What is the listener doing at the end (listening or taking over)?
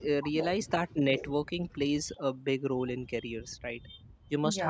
listening